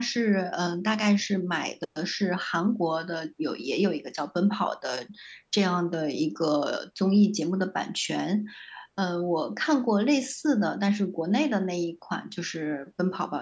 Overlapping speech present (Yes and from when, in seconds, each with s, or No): No